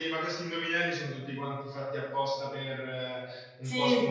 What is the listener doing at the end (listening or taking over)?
listening